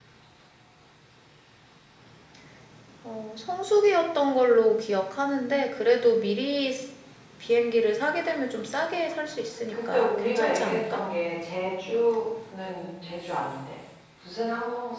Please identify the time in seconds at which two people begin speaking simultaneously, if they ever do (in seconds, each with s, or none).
9.7 s